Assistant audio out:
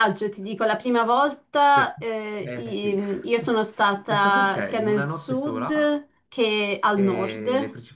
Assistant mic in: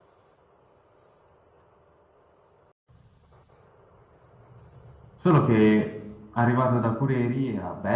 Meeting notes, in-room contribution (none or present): present